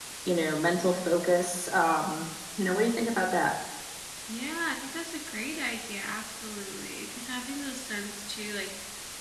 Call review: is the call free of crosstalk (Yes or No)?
Yes